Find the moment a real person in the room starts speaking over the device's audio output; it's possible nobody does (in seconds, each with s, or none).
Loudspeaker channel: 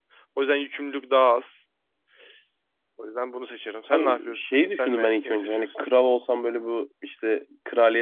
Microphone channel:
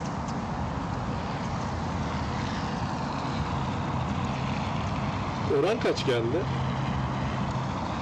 5.5 s